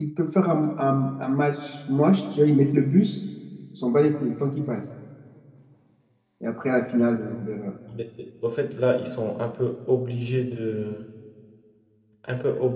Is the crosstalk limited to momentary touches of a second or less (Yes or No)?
Yes